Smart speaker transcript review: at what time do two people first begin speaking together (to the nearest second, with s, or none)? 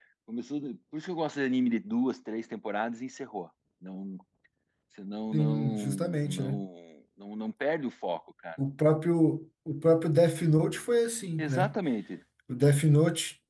5 s